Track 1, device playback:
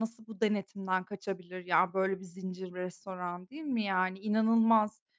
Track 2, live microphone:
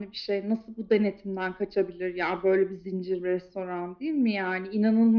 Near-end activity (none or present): none